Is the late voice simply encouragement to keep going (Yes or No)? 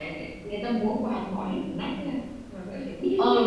No